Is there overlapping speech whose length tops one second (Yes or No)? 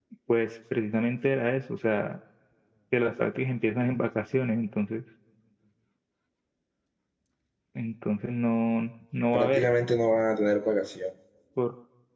No